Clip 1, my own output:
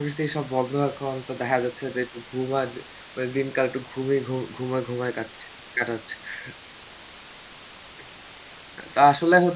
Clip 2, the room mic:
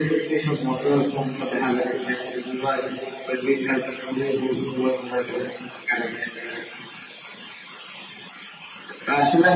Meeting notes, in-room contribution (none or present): none